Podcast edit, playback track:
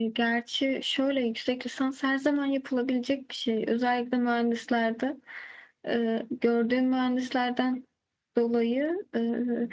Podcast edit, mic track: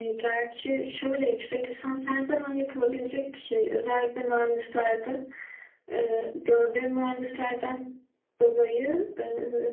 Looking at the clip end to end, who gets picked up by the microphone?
echo only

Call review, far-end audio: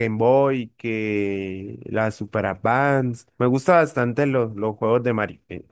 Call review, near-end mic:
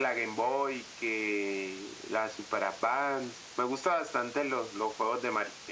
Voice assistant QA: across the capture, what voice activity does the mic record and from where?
echo only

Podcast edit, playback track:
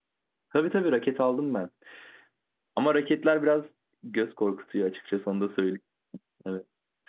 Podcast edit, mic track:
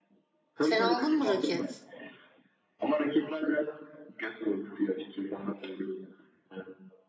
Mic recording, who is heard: both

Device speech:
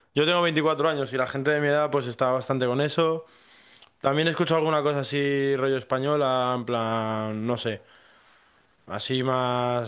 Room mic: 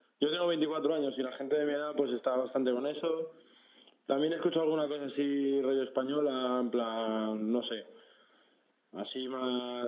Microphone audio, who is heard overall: echo only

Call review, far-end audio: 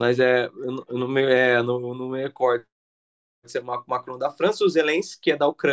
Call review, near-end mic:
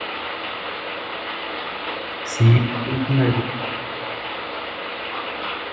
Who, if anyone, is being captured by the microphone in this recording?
user only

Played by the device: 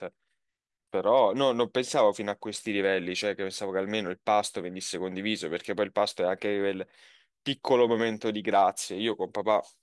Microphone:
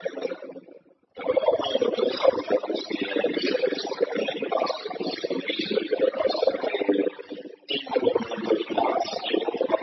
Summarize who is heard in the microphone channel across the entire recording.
echo only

